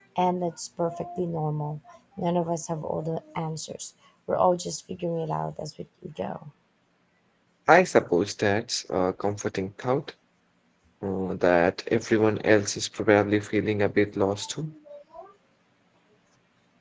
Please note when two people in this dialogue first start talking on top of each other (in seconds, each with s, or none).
none